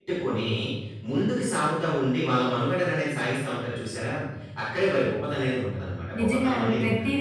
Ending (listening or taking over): taking over